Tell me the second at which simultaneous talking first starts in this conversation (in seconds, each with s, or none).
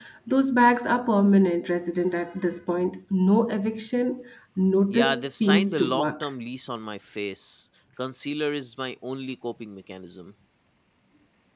4.9 s